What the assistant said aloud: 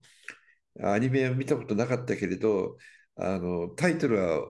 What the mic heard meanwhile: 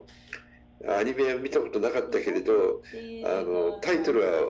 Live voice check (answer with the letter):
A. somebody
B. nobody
A